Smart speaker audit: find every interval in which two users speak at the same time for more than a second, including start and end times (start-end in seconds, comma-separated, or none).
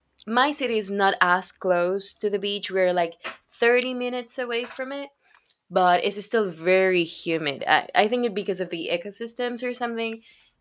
none